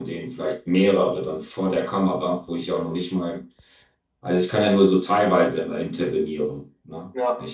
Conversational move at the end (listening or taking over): listening